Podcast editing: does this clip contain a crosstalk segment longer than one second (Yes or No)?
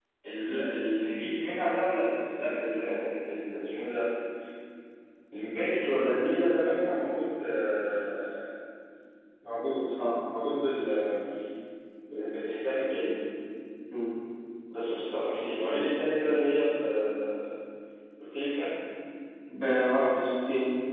No